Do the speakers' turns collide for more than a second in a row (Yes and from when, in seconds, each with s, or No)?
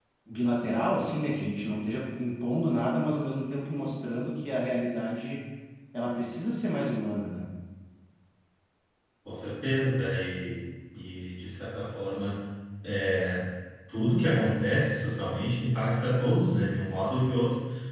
No